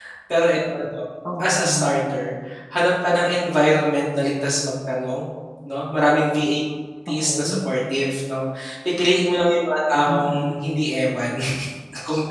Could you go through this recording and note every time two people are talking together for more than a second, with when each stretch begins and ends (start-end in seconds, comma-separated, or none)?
none